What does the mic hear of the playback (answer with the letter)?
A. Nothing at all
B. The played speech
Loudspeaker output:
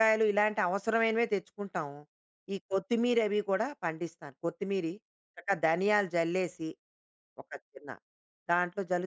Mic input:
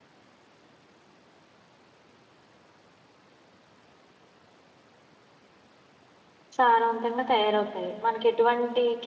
A